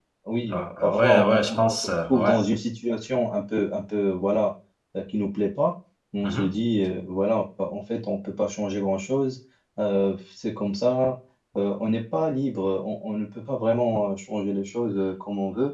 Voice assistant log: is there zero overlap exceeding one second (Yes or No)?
No